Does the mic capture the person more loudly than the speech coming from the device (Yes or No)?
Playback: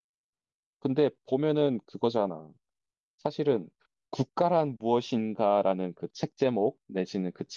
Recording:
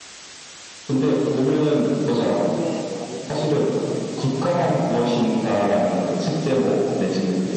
No